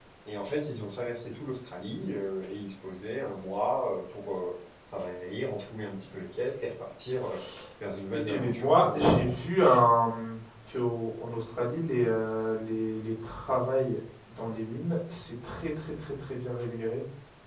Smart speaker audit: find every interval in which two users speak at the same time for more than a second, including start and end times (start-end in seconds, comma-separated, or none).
8.1-9.3